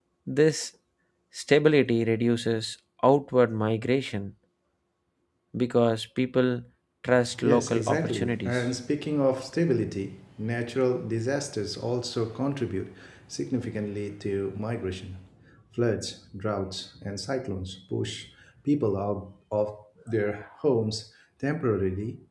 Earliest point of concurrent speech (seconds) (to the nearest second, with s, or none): 7 s